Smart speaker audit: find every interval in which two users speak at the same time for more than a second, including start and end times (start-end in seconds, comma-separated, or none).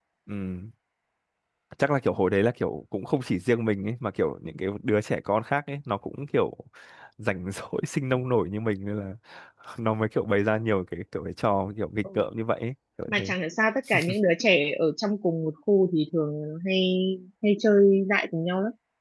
none